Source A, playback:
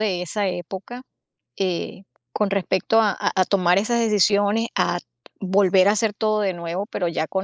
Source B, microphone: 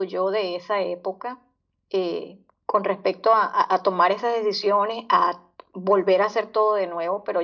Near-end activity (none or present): none